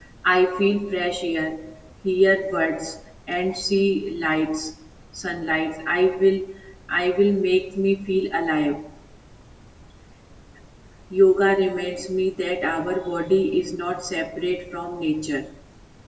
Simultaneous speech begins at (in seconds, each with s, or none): none